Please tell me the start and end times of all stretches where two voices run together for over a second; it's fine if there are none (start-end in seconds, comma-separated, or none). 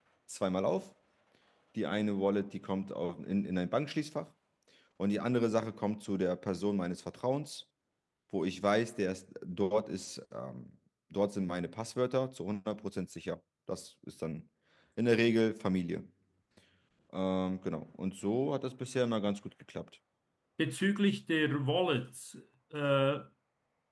none